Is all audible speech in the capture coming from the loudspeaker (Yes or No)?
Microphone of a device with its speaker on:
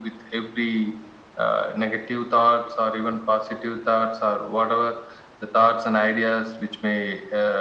Yes